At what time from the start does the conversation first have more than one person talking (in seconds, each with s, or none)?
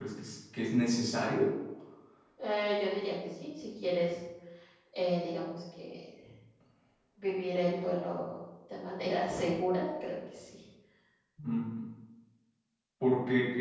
none